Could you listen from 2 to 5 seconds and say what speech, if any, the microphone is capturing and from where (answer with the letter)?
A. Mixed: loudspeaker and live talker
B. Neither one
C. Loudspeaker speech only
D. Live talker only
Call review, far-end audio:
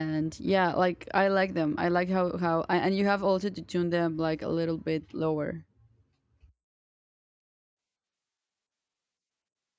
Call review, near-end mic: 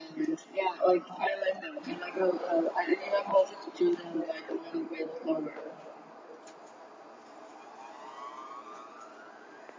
C